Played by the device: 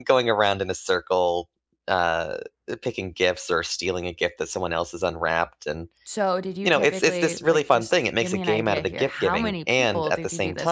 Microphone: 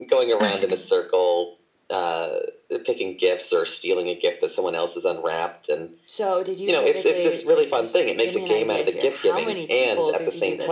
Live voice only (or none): Okay.